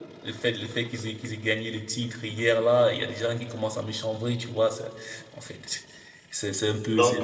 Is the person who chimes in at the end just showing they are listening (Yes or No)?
Yes